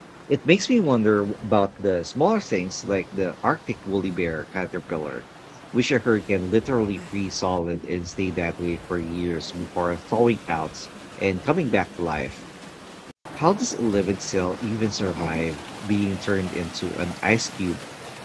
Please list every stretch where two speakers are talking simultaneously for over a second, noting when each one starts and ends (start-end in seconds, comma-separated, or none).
none